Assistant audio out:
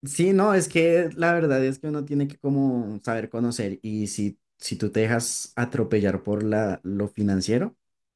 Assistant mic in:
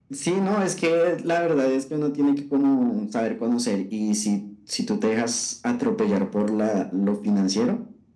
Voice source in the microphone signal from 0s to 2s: echo only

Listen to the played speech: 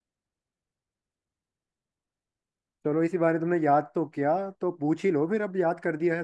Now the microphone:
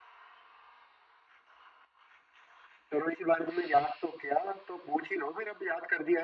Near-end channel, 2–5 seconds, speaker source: echo only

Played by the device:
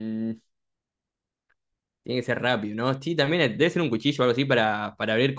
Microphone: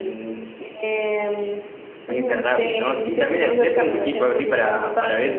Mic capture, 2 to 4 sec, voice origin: both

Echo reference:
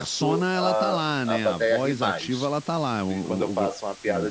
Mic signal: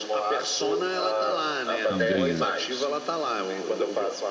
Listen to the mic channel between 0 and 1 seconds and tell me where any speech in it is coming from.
echo only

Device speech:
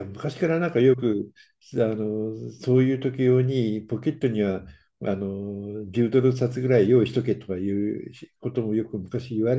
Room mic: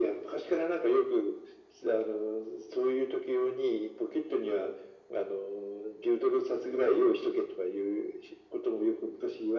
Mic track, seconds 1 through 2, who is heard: echo only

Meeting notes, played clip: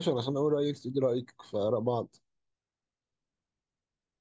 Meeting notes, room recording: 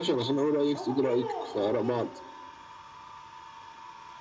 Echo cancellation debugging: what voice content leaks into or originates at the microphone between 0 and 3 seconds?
both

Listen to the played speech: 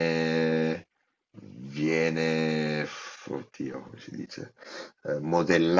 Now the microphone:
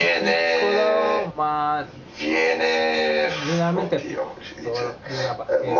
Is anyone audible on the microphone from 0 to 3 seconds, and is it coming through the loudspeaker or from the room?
both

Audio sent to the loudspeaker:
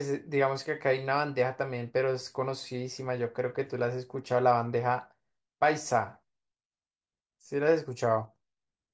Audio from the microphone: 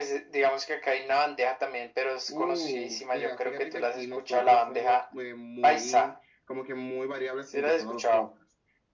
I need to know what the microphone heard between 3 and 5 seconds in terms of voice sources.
both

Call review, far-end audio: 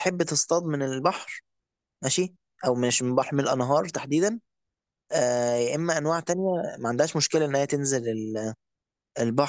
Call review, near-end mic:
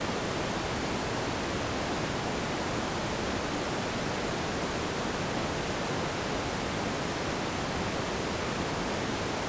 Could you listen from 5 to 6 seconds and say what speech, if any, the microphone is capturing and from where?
neither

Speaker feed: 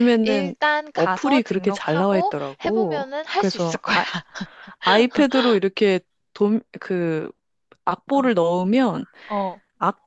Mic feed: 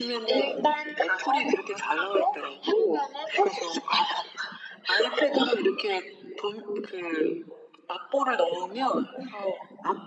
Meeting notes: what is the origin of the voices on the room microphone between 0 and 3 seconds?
echo only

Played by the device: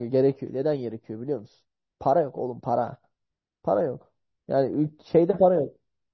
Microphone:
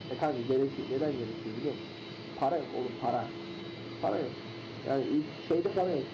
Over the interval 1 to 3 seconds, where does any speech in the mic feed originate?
echo only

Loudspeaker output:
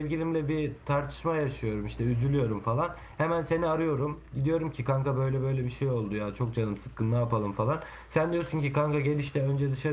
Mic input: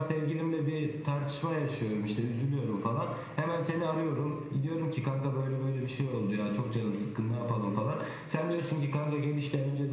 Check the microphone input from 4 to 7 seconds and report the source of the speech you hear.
echo only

